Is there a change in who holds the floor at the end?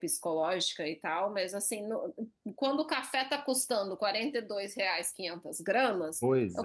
No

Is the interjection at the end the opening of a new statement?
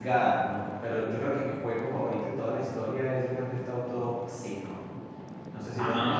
Yes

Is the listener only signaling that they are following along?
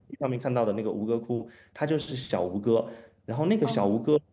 Yes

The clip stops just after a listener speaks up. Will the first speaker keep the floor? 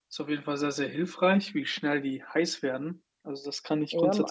No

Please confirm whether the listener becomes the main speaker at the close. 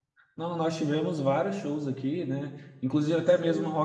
No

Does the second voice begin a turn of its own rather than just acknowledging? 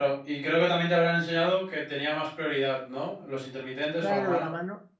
Yes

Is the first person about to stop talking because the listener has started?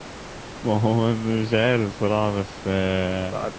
No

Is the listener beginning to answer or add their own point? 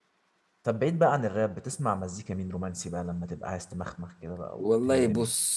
Yes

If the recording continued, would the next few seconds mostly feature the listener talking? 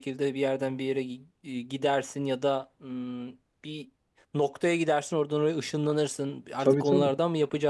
No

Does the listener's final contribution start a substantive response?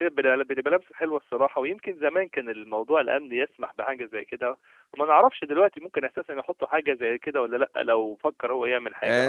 Yes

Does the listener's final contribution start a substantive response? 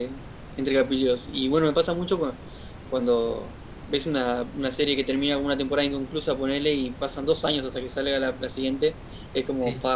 No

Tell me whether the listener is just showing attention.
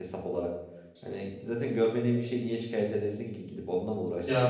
No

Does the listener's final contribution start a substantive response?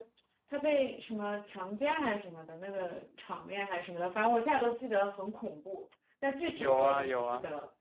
Yes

